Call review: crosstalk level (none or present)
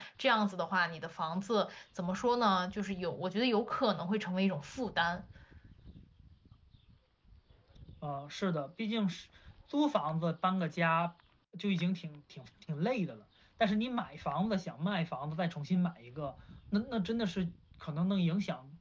none